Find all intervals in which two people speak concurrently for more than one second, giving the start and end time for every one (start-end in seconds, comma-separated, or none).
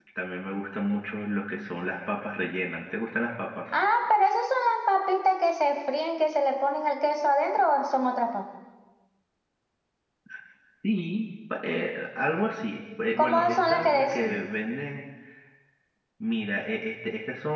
13.2-14.4